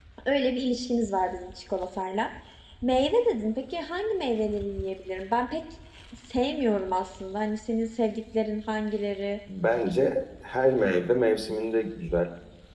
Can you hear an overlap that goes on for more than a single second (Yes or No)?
No